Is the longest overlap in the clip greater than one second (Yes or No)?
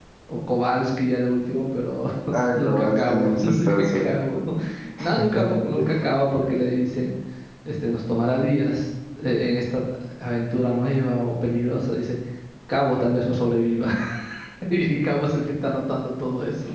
Yes